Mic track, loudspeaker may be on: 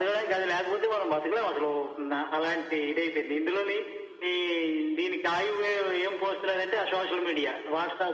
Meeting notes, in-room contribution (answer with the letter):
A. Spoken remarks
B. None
B